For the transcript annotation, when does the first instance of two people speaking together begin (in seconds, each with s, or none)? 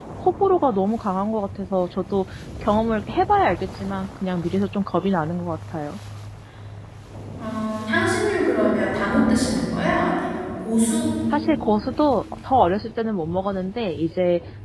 none